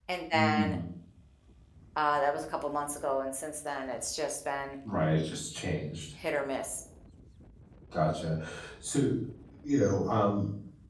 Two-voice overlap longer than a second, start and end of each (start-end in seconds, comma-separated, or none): none